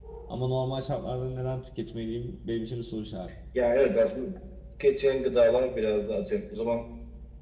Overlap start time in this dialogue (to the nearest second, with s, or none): none